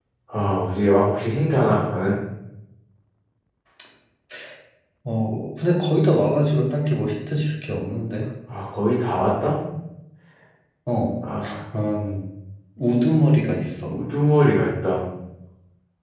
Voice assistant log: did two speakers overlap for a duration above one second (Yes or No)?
No